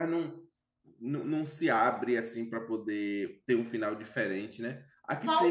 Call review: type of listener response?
taking over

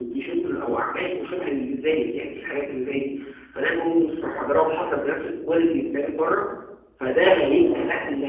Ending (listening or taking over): listening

